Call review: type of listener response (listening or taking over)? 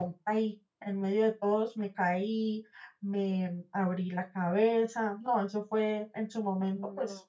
listening